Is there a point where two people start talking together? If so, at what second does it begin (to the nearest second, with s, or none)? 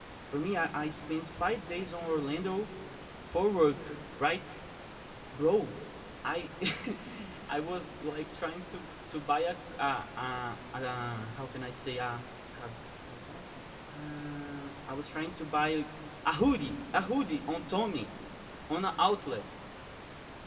none